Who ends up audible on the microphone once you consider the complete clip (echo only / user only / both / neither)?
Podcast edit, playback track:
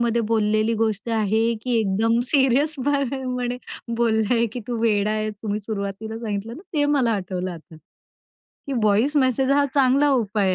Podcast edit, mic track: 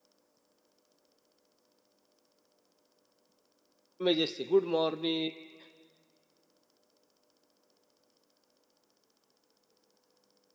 user only